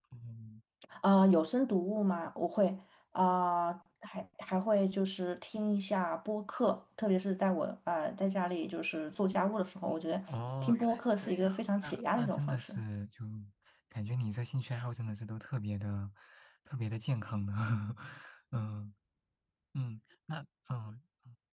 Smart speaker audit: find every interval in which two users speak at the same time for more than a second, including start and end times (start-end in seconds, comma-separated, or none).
10.6-12.7